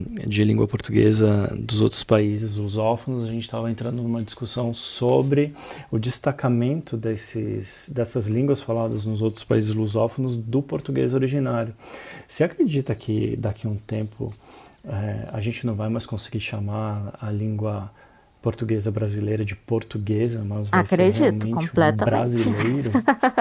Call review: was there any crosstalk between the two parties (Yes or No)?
Yes